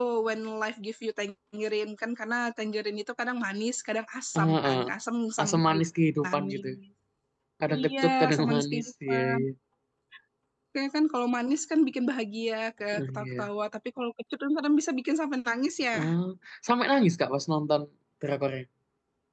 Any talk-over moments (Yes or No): Yes